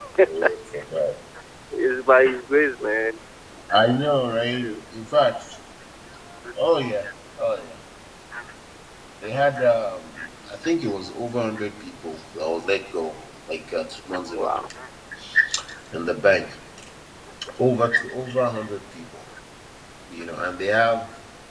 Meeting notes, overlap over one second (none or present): none